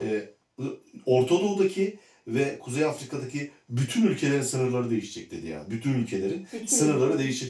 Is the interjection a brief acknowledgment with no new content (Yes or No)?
Yes